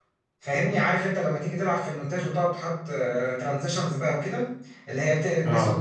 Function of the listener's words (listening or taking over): listening